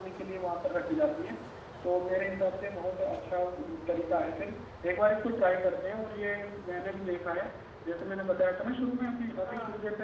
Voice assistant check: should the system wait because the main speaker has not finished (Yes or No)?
Yes